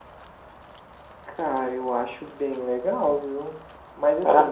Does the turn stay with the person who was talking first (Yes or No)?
Yes